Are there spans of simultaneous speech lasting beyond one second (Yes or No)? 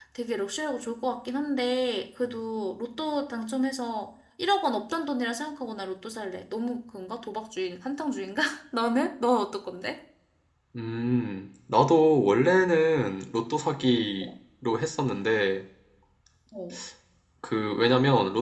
No